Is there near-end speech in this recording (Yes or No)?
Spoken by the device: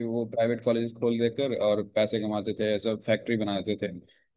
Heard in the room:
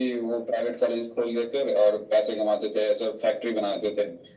No